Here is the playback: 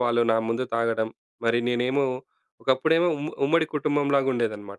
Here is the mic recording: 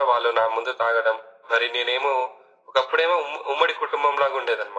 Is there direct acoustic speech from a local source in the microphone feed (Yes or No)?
No